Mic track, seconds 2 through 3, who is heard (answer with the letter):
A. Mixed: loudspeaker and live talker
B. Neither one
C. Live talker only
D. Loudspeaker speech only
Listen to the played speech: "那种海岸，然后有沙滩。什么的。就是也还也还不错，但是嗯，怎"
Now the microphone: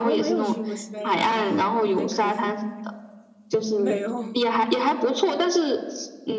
A